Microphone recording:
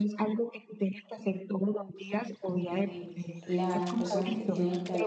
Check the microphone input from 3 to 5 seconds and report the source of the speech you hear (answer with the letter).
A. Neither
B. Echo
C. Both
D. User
C